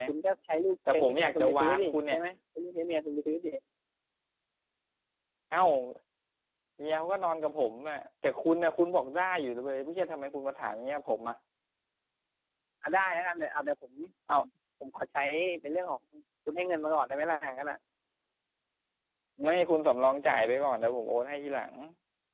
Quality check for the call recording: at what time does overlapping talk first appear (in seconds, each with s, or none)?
0.9 s